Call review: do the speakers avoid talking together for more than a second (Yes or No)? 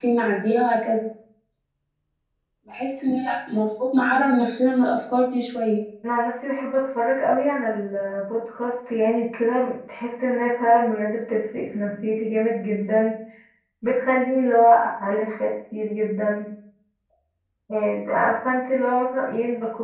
Yes